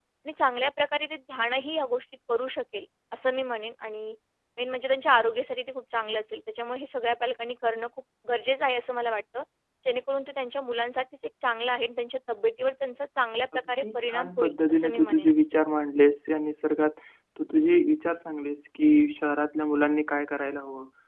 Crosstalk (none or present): present